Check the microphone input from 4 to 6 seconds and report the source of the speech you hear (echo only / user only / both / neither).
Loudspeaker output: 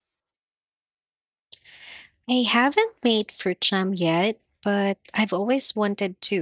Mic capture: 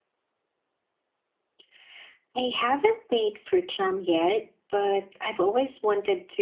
echo only